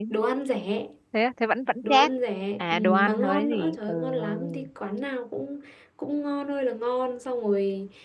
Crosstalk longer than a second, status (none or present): present